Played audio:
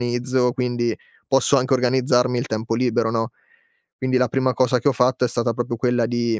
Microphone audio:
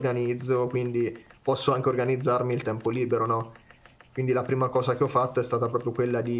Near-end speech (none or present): none